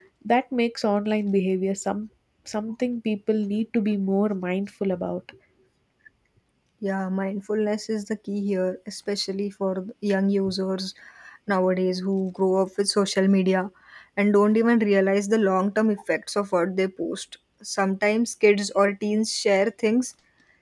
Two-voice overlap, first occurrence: none

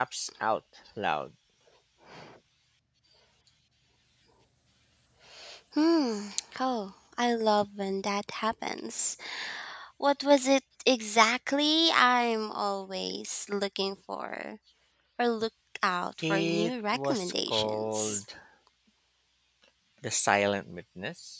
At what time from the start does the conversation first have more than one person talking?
16.2 s

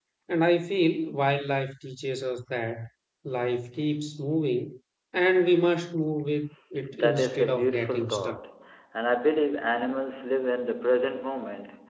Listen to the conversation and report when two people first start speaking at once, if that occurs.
6.9 s

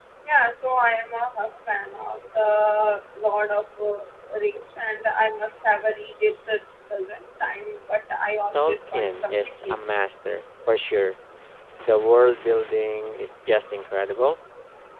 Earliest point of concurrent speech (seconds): 8.5 s

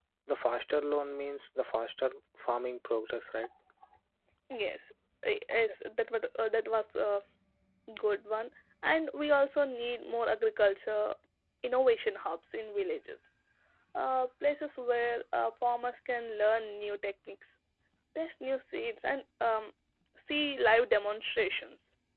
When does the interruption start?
none

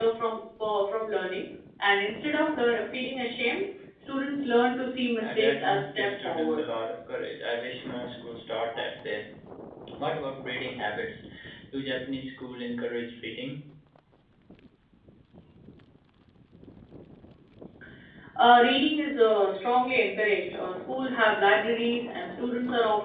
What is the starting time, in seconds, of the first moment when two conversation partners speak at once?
5.2 s

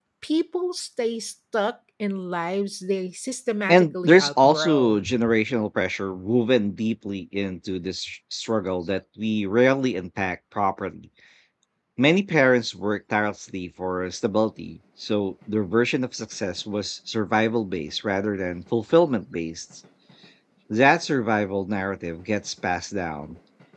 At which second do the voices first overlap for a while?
3.7 s

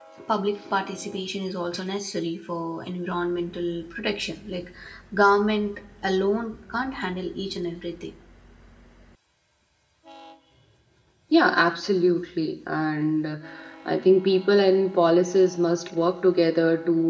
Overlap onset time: none

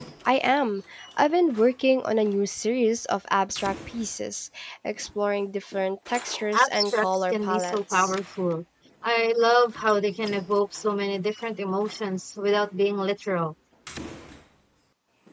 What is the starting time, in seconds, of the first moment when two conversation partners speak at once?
6.5 s

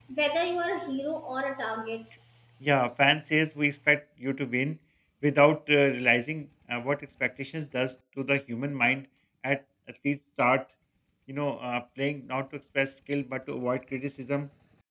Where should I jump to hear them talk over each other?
none

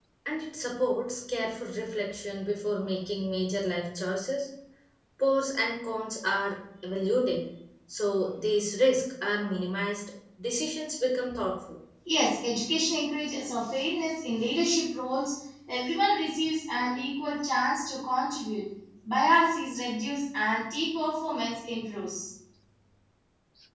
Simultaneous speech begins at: none

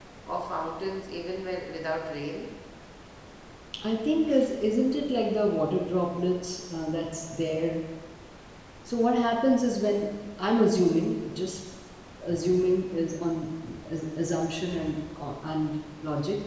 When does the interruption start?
none

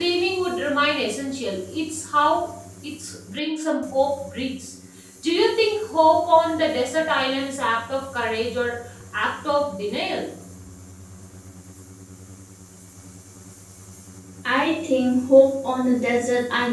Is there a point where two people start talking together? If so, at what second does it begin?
none

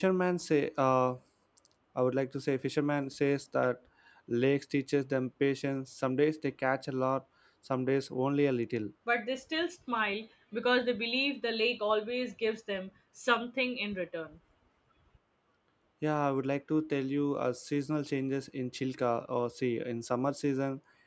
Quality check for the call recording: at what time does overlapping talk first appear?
none

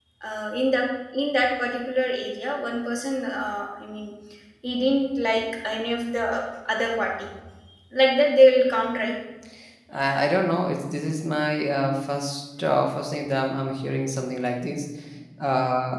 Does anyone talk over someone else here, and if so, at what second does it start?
none

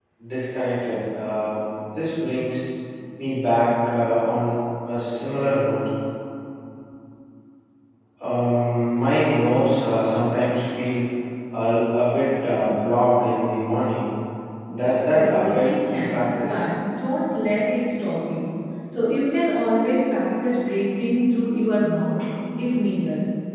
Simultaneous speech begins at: 15.1 s

